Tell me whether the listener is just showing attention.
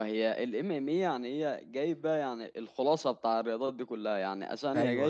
Yes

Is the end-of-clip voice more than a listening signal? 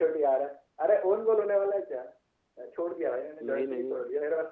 No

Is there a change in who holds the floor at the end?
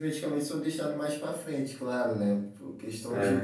No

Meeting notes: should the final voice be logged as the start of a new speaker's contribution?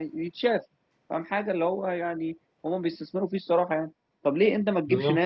No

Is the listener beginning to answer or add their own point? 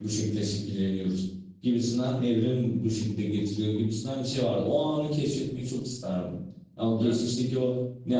No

